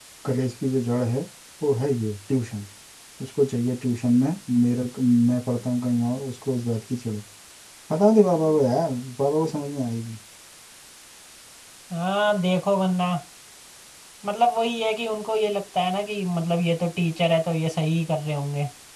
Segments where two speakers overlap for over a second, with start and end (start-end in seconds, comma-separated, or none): none